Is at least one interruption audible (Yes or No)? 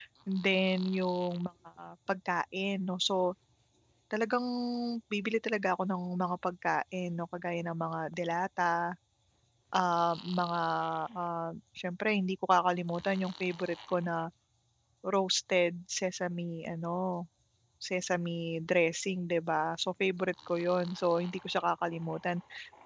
No